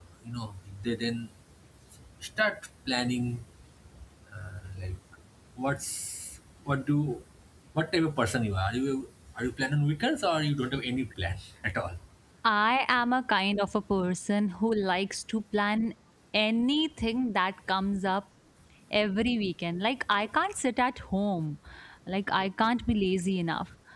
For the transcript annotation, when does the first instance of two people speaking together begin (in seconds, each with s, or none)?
none